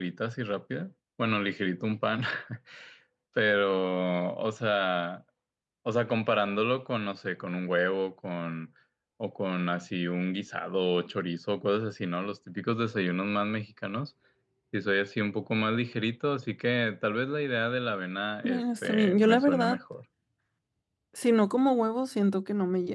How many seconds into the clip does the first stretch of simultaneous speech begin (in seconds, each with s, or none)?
18.4 s